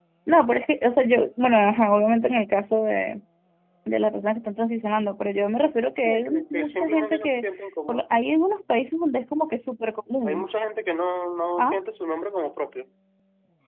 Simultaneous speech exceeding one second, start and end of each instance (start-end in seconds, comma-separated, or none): 6.0-7.4